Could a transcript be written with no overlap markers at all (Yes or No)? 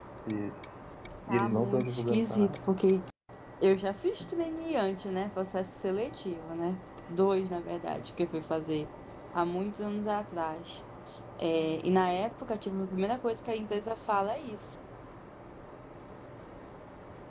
No